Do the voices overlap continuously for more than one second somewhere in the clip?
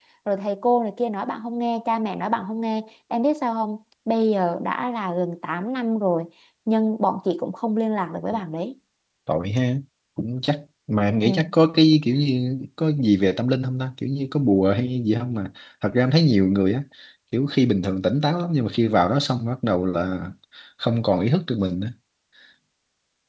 No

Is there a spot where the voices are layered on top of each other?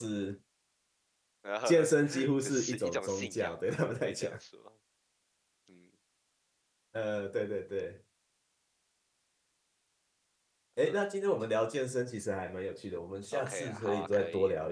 Yes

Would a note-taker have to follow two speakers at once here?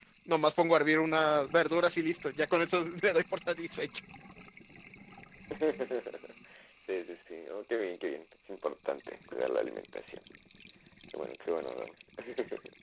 No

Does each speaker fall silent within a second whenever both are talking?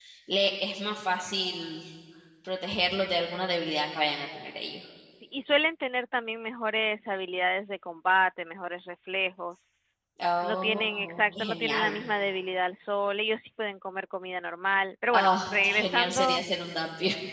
No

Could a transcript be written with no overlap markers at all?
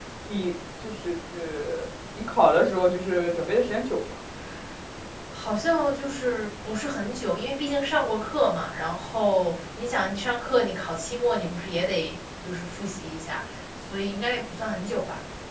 Yes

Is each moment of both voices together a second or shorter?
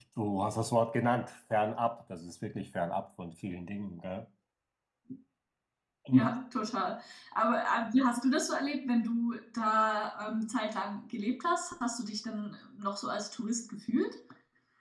Yes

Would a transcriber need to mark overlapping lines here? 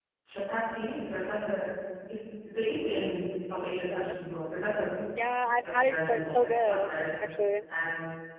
Yes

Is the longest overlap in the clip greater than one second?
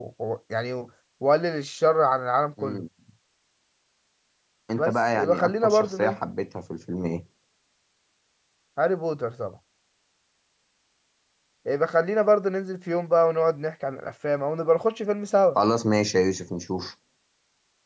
Yes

